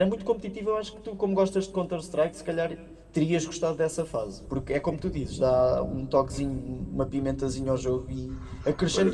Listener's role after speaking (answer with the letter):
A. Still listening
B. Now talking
B